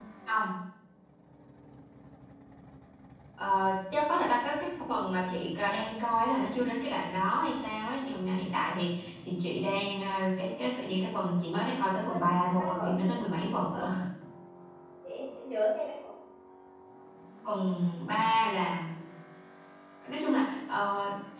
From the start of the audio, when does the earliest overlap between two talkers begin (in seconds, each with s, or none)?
12.1 s